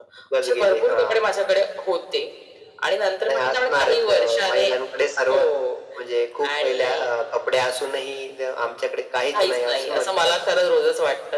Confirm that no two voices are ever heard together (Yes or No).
No